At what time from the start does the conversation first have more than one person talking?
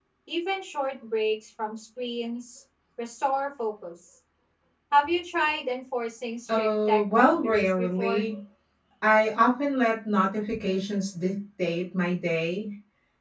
6.5 s

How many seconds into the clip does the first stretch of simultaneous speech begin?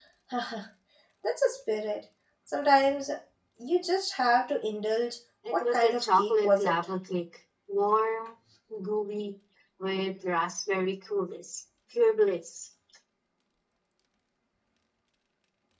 5.5 s

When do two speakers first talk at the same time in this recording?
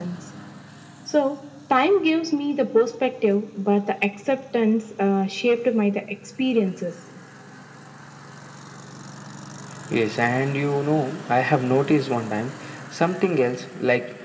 none

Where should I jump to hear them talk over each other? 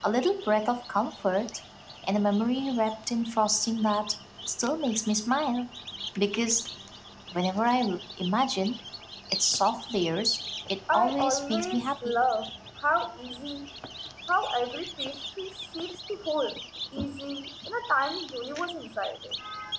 10.9 s

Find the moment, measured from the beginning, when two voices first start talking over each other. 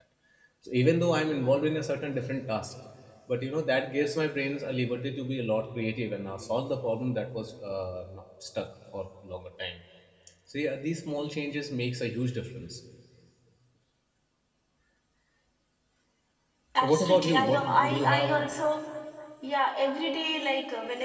16.8 s

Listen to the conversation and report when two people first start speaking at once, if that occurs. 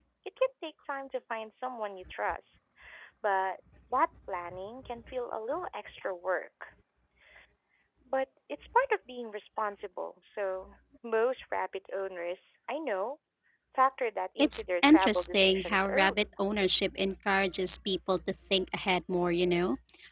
14.4 s

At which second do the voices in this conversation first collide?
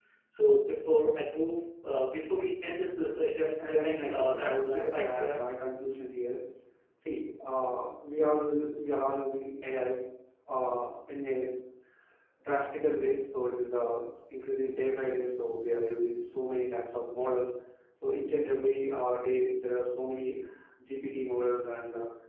3.6 s

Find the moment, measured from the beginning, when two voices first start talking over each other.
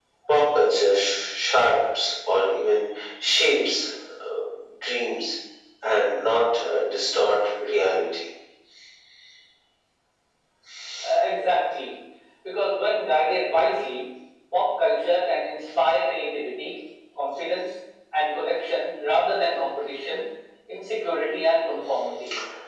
none

